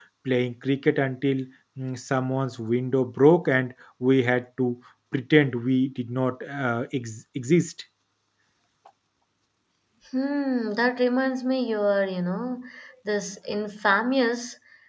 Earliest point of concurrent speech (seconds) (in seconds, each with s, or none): none